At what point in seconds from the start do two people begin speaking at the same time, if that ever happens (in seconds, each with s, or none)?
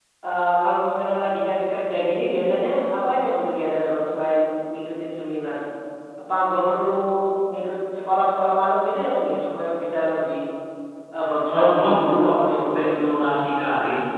11.5 s